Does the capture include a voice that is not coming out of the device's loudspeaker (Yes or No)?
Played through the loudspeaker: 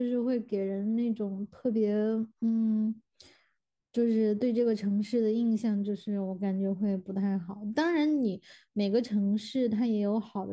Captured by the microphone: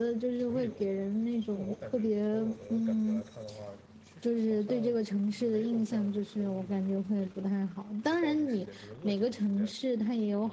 Yes